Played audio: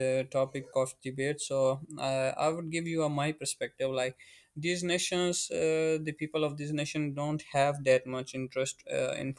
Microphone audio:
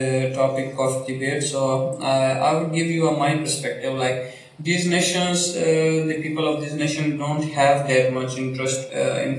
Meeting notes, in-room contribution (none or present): none